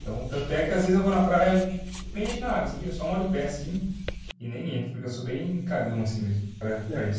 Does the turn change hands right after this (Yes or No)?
Yes